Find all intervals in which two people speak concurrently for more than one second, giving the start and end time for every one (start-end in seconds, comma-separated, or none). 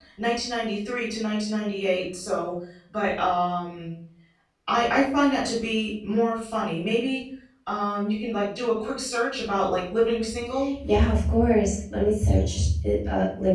none